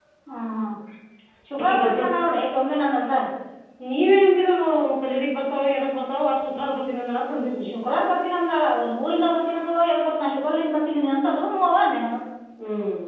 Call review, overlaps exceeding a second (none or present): none